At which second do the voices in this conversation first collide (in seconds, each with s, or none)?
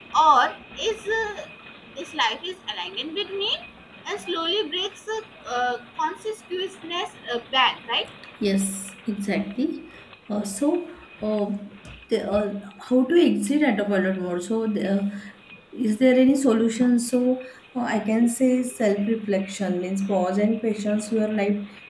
none